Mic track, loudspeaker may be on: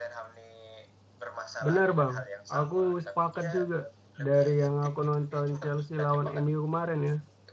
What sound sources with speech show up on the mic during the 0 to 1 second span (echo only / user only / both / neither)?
echo only